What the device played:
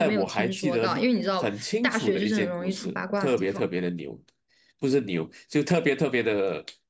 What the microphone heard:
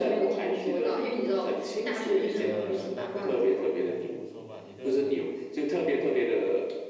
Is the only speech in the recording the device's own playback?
No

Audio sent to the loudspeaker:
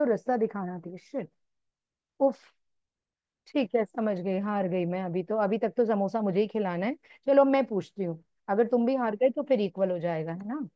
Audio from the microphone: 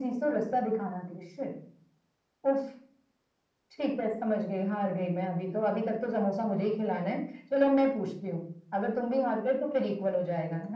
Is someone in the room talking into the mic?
No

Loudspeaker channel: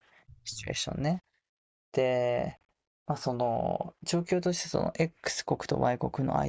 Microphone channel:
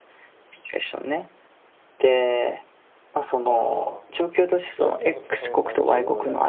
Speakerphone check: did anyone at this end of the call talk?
Yes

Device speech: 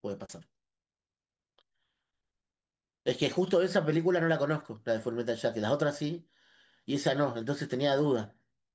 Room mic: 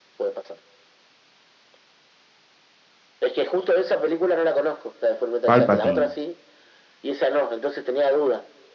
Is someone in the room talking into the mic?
Yes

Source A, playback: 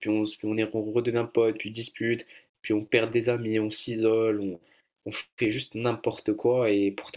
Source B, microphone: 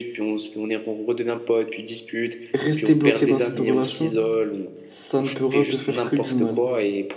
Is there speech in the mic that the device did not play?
Yes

